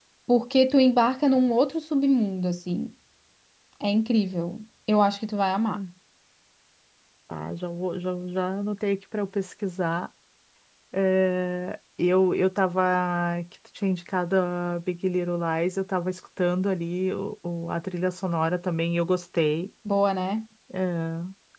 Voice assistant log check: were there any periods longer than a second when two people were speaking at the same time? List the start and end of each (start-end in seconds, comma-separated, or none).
none